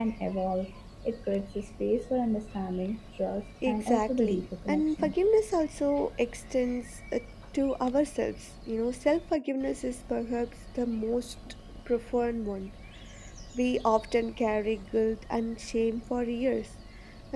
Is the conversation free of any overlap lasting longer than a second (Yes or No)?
No